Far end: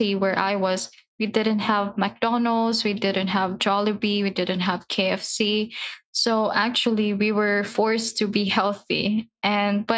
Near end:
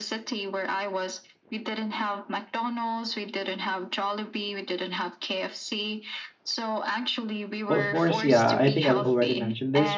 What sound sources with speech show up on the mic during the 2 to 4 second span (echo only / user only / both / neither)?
echo only